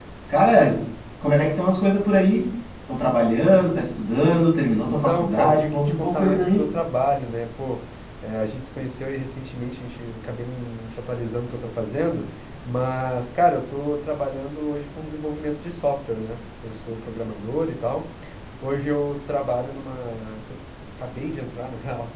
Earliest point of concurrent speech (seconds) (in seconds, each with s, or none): 4.8 s